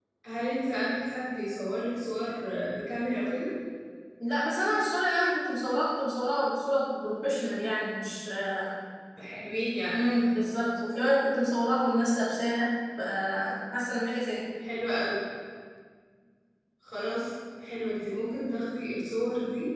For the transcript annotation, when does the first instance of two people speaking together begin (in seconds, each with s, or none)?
none